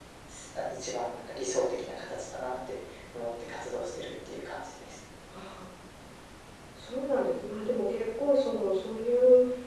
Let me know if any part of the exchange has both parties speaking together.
No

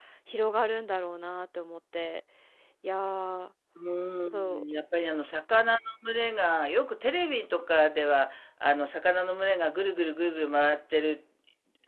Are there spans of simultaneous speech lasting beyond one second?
No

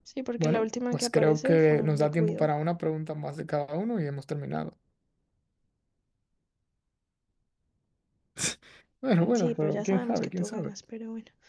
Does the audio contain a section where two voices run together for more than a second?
Yes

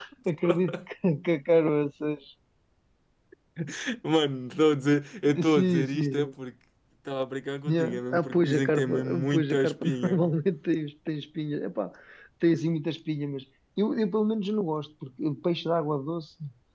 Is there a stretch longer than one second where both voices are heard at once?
Yes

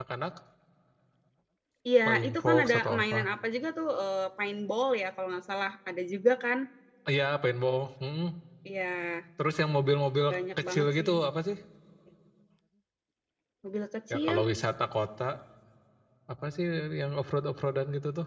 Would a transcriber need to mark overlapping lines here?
Yes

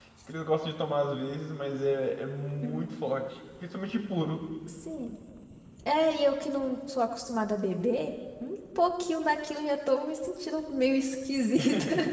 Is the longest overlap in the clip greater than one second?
No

